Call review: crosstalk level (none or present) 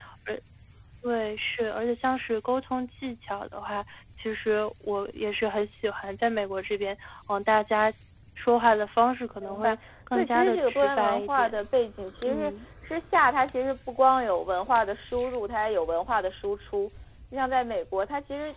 present